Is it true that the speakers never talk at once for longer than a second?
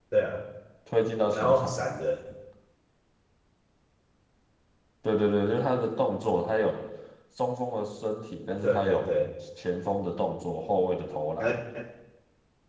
Yes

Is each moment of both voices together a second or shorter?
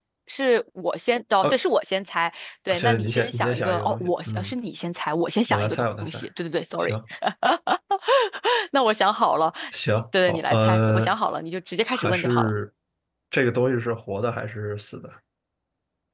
No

